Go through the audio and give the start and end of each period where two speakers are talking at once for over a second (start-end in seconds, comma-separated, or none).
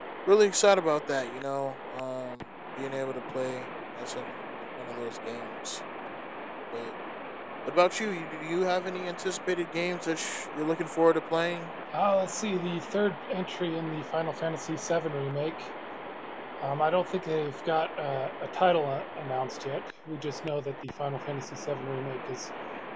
none